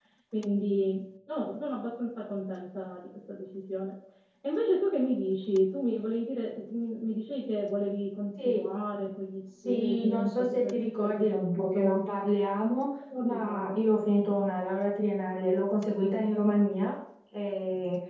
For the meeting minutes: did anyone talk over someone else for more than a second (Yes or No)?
Yes